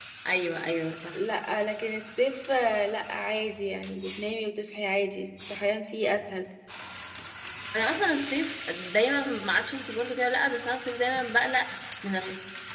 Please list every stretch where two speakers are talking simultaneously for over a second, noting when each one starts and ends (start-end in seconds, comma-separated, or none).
none